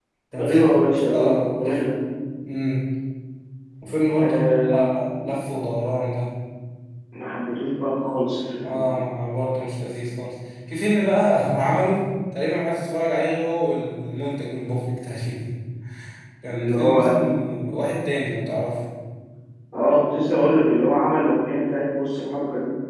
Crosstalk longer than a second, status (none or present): present